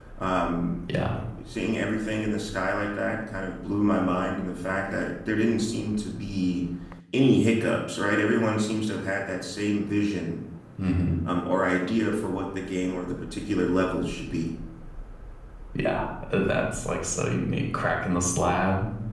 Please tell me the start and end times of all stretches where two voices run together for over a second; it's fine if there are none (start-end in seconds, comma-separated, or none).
none